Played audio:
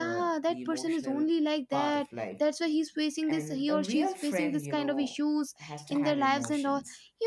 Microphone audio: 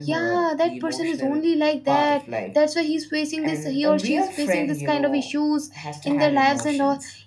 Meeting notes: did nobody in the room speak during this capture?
Yes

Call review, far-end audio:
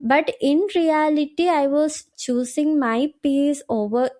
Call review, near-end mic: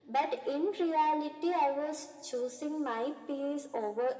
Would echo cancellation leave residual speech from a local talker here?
No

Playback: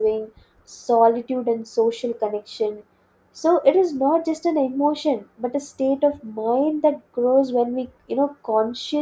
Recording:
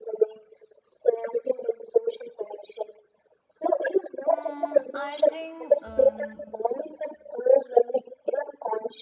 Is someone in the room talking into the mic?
Yes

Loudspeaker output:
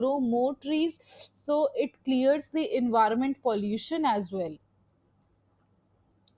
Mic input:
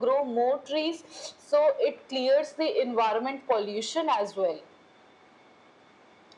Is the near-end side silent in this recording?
Yes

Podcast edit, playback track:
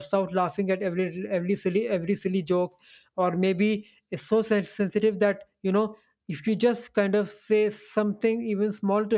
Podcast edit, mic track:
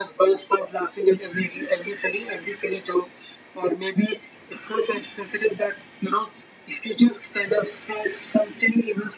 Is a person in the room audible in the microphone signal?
No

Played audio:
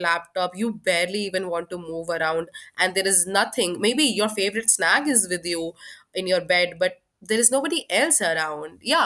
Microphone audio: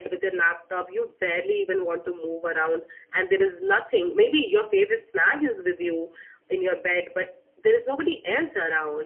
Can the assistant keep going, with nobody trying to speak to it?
Yes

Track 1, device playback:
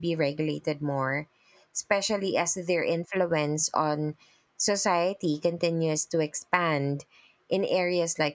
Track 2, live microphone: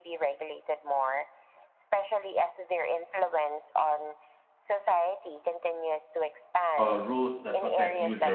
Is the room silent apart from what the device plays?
No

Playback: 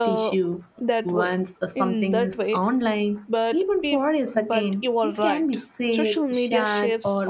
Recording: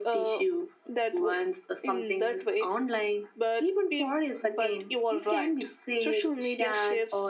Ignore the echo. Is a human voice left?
No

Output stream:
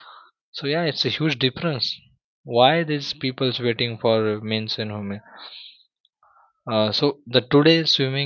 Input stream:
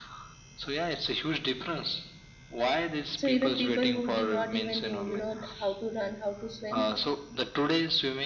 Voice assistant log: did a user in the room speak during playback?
Yes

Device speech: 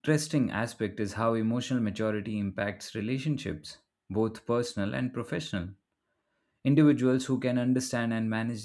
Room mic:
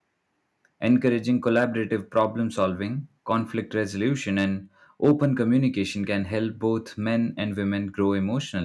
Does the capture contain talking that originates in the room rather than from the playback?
Yes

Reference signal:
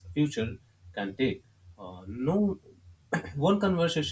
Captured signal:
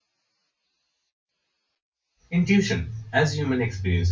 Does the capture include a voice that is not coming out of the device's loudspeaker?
Yes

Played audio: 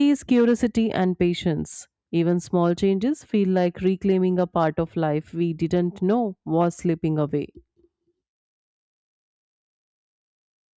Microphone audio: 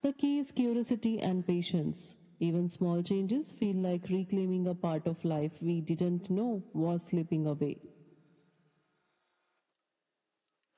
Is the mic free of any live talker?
Yes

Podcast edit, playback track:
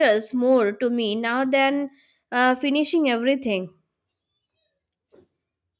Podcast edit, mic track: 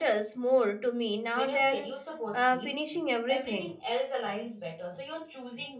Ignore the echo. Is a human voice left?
Yes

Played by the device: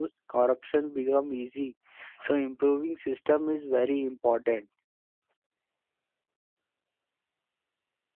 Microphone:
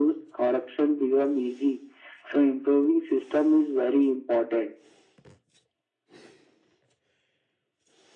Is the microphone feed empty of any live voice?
Yes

